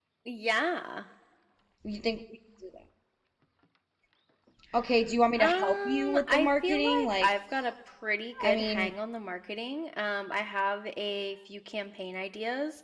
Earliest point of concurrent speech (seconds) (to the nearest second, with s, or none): 5 s